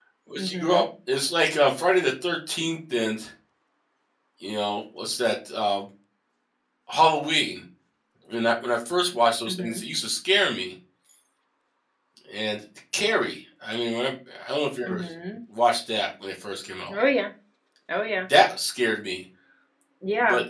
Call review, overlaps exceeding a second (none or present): none